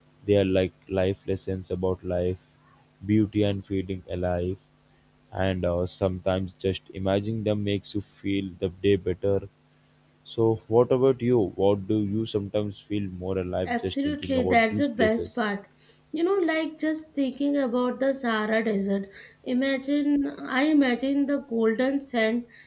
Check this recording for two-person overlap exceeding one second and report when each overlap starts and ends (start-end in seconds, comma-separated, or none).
13.7-15.4